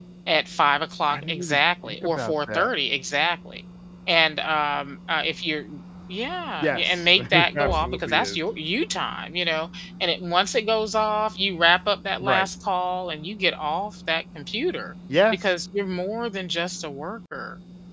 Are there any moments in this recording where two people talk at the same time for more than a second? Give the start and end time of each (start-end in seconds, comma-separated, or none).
1.1-2.7, 6.6-8.4